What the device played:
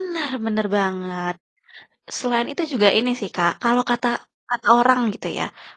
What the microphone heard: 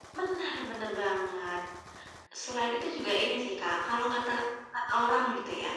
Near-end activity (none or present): none